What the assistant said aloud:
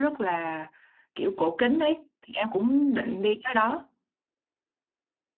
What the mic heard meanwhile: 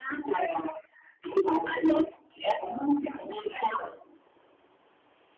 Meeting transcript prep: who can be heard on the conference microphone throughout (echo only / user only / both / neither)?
echo only